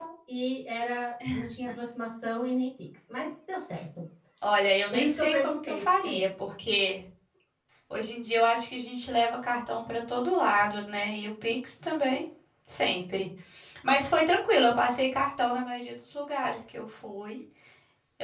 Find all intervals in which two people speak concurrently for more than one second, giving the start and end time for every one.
4.9-6.3

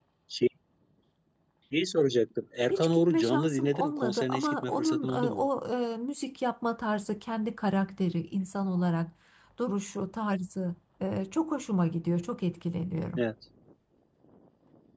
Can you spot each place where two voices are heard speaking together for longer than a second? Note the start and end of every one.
2.7-5.4

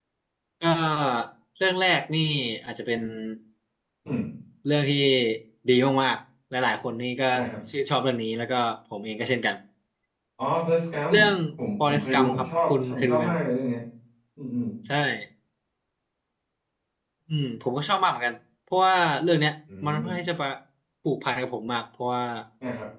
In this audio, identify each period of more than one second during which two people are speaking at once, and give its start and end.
11.8-13.4

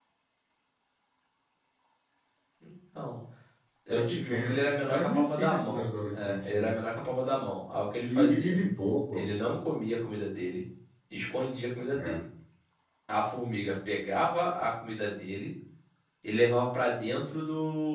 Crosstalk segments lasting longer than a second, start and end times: 3.9-6.7

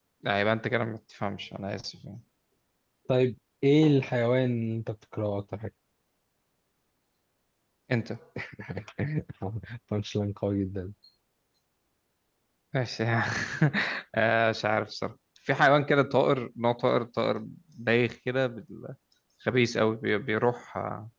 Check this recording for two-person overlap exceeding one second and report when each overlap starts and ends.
none

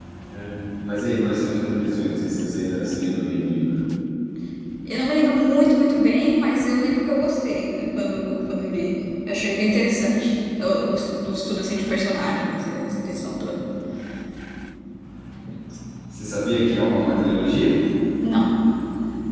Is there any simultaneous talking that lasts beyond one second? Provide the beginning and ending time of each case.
none

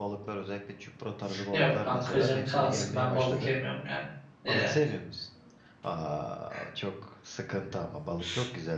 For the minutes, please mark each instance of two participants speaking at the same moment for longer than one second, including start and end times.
1.5-3.5

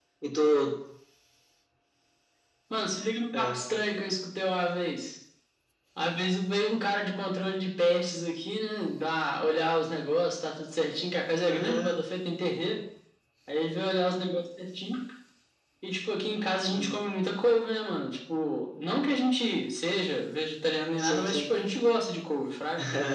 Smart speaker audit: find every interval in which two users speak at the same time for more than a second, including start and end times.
none

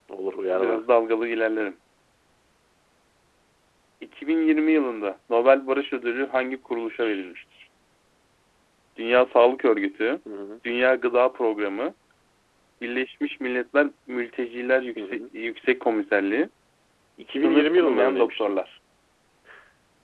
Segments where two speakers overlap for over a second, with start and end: 17.3-18.5

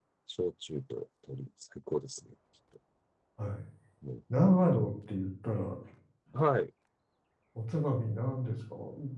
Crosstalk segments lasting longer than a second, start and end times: none

